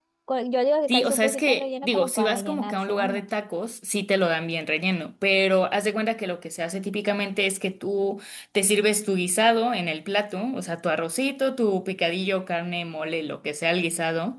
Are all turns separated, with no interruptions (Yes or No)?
No